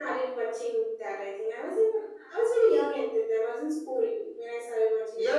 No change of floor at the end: No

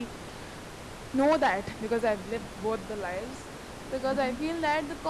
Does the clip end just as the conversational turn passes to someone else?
No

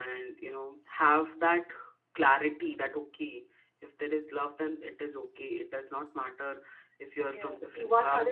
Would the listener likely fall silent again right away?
No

